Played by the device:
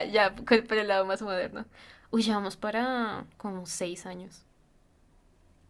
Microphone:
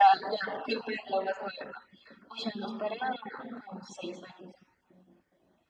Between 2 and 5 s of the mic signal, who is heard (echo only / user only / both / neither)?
echo only